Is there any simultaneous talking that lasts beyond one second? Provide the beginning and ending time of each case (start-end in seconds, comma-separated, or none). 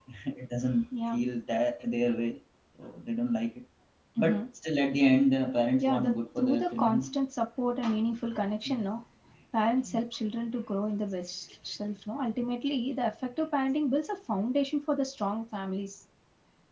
5.8-7.1